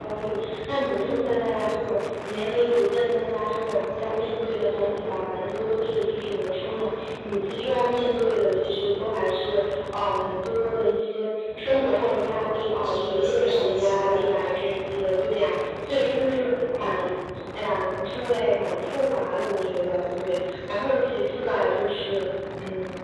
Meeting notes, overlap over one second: present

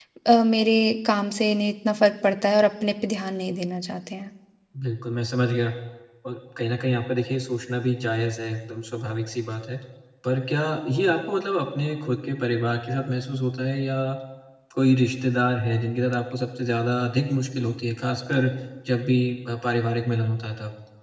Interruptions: none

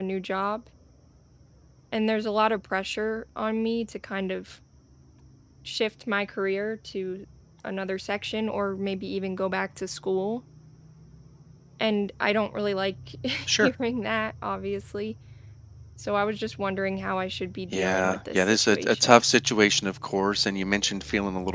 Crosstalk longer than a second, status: present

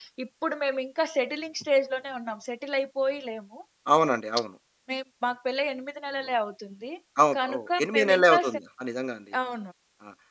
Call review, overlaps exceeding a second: present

